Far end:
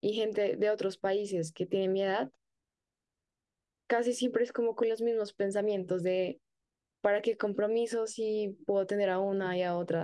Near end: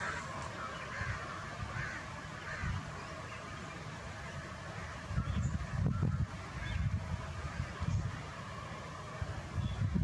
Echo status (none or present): none